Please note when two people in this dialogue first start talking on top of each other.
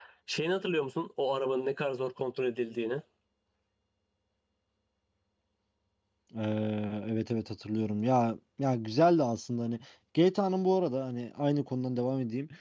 none

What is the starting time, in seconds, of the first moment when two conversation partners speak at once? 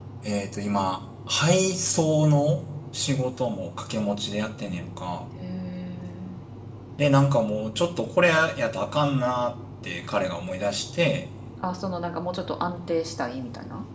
none

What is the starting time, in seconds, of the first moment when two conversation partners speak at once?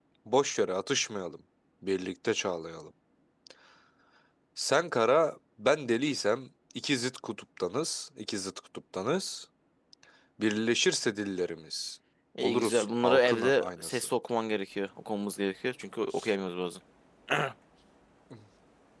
12.4 s

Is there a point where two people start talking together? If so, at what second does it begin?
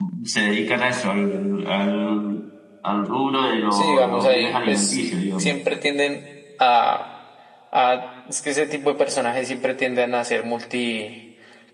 3.7 s

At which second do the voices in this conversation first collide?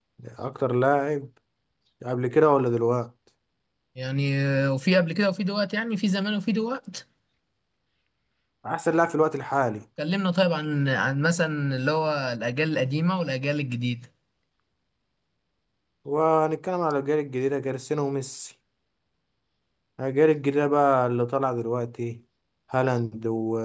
none

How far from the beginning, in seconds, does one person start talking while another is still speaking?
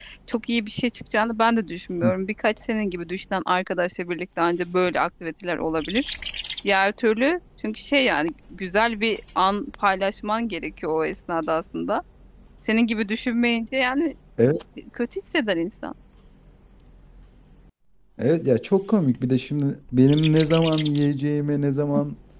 none

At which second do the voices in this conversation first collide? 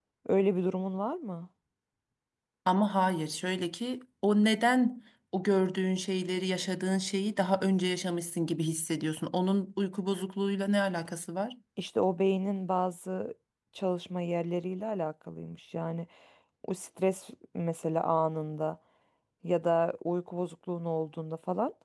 none

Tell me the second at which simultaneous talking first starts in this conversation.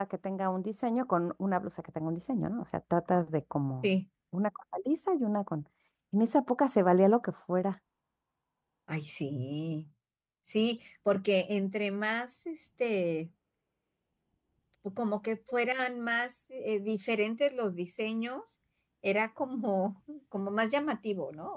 none

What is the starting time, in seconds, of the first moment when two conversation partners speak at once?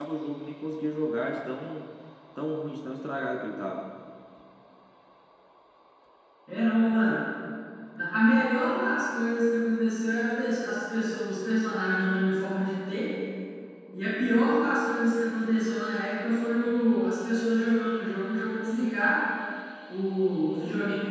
none

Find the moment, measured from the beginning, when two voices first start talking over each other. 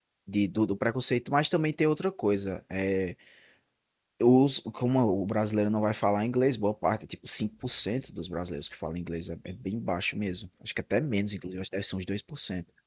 none

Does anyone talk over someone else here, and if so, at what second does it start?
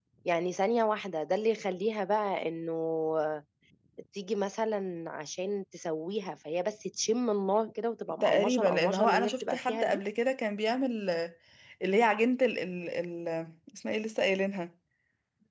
8.2 s

